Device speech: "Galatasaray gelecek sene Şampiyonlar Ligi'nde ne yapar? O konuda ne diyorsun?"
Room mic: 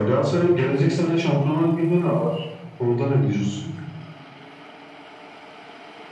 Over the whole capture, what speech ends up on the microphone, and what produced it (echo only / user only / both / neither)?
echo only